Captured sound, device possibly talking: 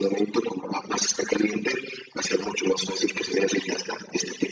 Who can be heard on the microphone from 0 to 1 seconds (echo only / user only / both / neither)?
echo only